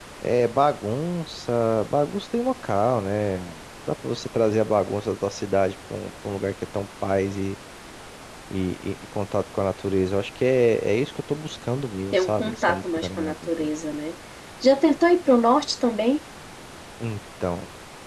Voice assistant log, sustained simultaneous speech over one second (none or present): present